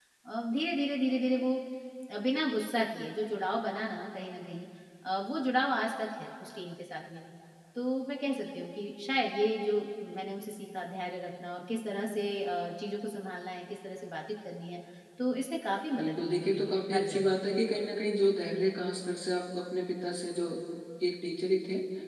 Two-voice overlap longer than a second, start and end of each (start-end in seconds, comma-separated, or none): 16.0-17.3